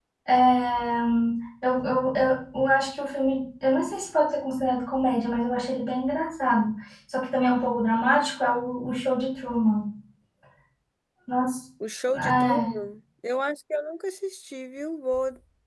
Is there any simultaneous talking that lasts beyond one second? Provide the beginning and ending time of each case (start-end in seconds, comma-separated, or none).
none